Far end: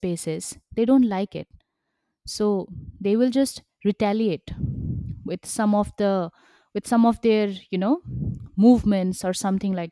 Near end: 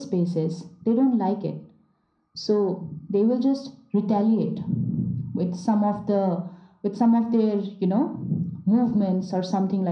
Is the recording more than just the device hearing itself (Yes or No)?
No